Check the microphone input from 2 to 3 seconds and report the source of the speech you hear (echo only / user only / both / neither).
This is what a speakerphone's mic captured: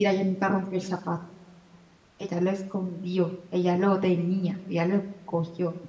user only